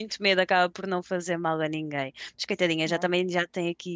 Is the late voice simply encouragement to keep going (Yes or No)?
Yes